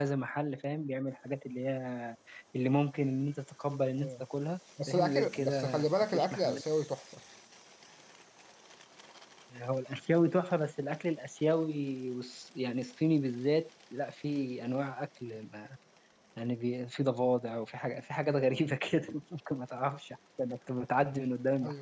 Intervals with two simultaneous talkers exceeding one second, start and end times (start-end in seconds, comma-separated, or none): 4.9-6.6